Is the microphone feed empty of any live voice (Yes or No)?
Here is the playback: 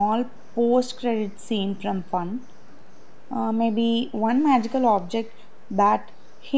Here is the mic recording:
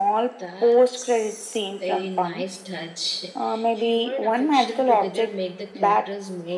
No